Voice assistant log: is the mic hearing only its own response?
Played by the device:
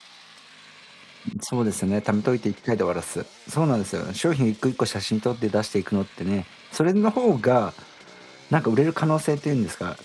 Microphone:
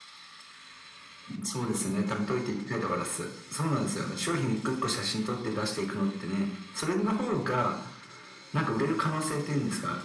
Yes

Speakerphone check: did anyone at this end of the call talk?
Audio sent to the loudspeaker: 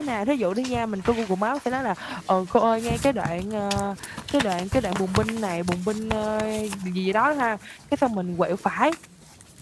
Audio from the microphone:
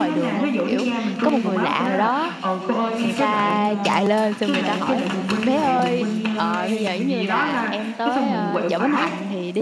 Yes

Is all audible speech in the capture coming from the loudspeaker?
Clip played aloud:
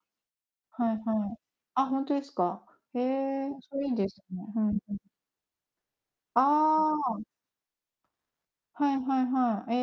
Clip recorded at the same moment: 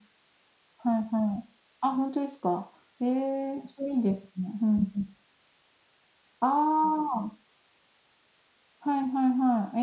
Yes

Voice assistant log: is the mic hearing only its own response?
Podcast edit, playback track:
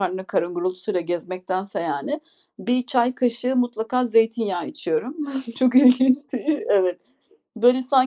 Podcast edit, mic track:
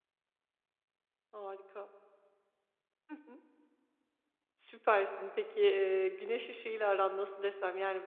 No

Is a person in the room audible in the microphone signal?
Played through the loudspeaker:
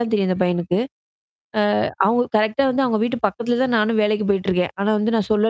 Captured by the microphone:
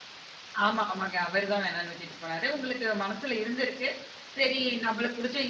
Yes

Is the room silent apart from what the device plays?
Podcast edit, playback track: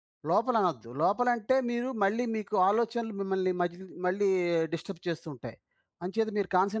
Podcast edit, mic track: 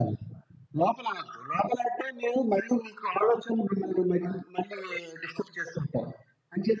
Yes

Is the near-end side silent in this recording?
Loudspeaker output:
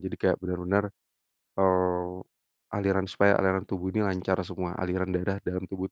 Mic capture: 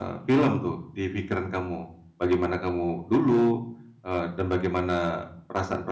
No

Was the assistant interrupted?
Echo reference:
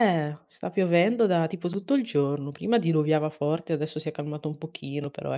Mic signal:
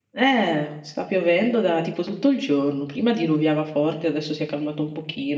No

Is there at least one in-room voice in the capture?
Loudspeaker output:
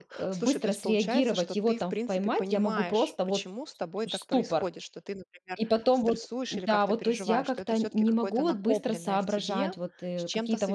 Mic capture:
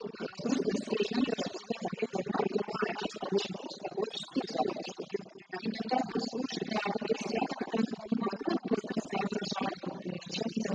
No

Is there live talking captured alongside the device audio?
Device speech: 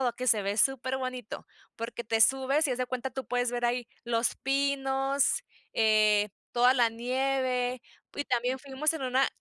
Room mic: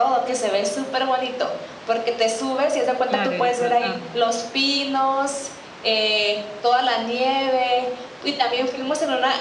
Yes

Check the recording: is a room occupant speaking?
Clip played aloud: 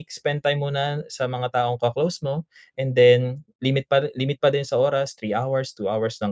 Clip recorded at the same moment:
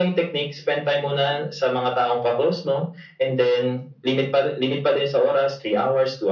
No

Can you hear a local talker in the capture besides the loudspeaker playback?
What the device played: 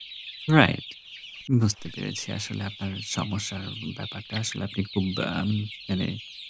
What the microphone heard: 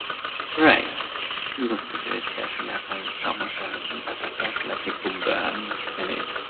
No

